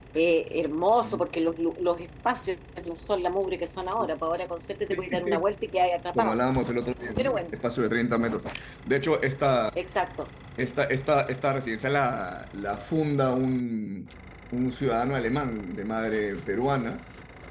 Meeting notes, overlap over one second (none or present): none